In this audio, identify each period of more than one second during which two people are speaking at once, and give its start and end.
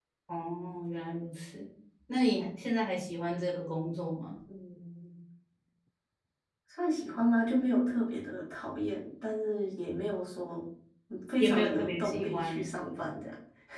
11.4-12.6

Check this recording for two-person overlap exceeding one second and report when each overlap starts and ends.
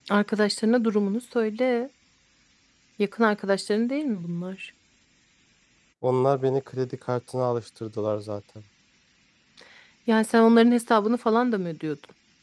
none

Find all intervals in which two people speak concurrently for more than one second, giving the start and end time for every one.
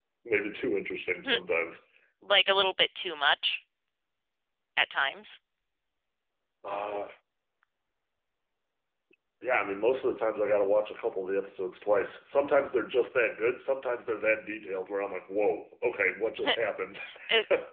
none

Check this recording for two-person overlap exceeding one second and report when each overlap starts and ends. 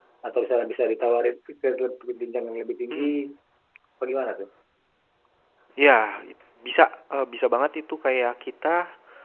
none

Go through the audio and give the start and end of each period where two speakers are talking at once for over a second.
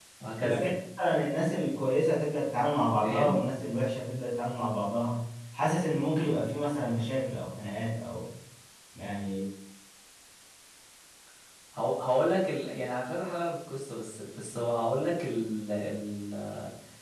none

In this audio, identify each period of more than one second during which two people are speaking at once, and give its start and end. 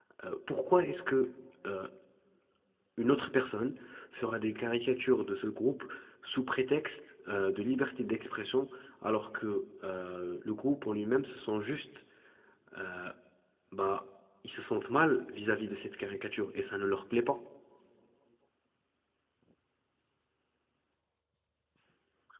none

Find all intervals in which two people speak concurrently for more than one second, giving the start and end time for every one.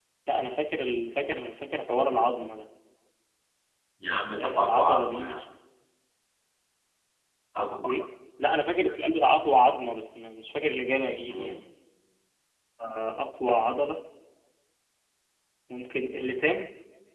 4.1-5.5

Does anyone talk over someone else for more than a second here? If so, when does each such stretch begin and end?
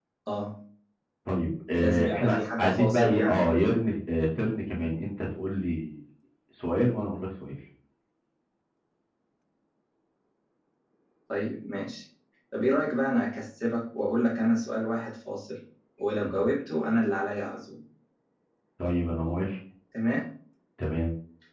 1.8-3.4

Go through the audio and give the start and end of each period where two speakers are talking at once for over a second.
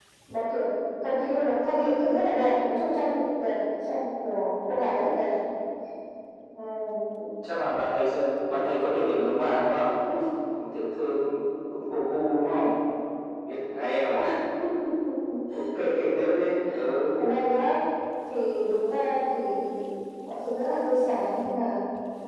none

